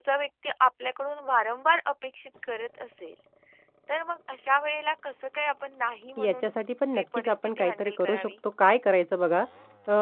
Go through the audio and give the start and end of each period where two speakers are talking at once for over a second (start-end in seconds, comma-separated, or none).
6.9-8.3